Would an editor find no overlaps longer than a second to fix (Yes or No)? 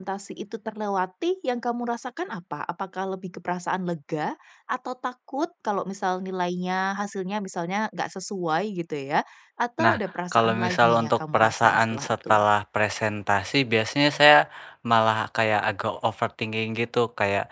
No